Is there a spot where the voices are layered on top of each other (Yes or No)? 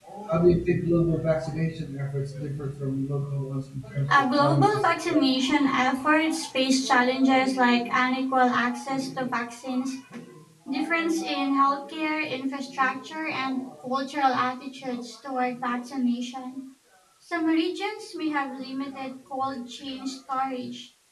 Yes